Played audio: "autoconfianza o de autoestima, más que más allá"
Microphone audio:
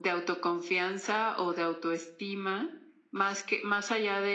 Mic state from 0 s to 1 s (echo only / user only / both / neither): echo only